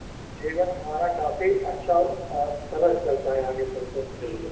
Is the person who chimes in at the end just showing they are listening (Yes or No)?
No